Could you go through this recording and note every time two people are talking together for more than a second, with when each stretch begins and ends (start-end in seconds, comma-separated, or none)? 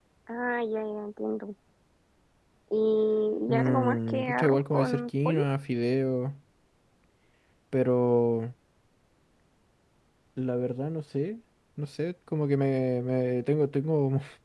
3.5-5.4